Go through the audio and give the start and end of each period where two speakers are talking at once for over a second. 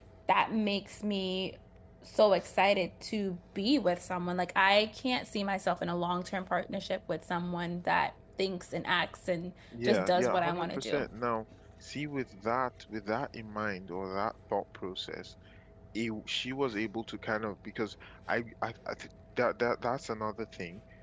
9.8-11.0

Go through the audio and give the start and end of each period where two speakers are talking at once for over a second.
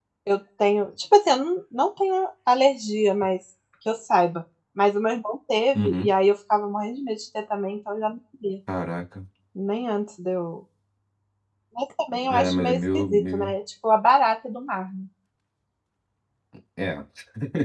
12.3-13.5

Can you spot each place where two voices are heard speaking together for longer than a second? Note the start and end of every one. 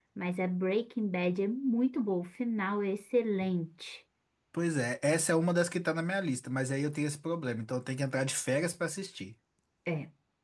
none

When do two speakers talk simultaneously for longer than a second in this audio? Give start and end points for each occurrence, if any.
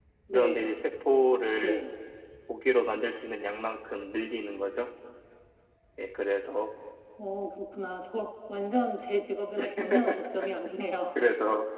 none

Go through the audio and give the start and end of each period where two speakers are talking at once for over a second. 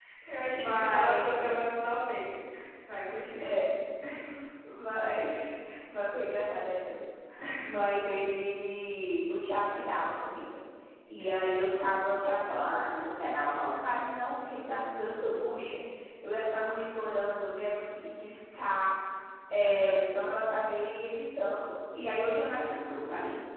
0.5-1.7

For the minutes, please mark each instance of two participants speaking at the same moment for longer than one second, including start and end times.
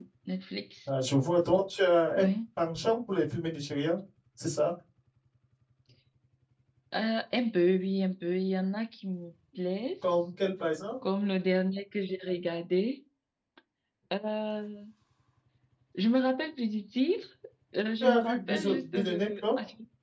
18.0-19.4

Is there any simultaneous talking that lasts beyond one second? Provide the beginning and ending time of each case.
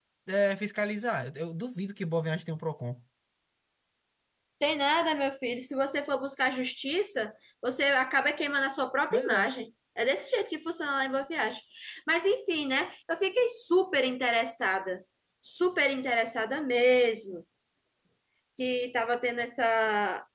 none

